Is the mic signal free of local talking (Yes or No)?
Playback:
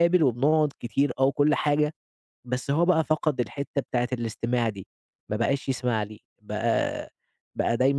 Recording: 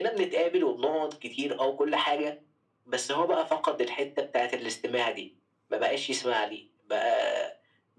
Yes